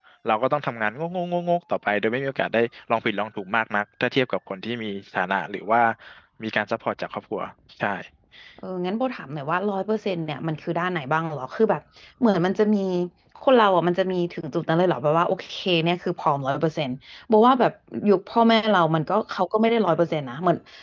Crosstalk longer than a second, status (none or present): none